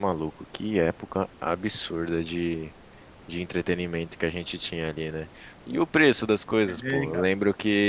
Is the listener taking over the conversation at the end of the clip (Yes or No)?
No